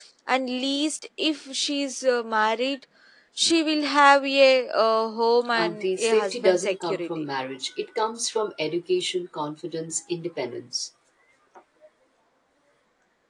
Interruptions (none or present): present